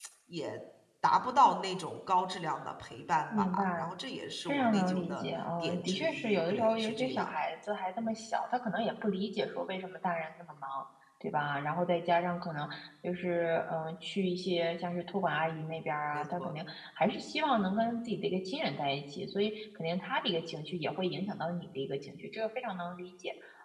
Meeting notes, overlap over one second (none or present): present